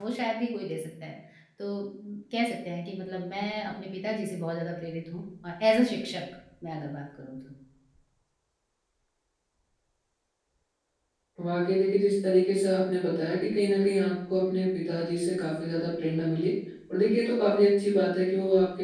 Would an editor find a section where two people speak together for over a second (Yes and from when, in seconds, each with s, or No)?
No